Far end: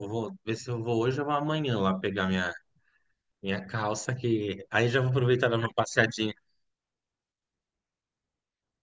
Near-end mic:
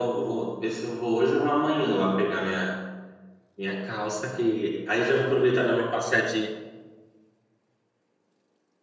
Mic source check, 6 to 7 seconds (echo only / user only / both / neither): echo only